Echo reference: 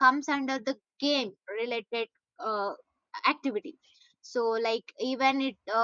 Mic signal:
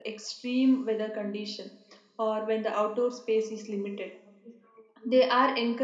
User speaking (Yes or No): Yes